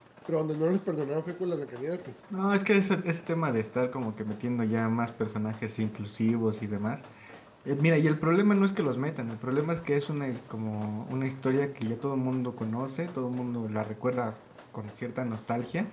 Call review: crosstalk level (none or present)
none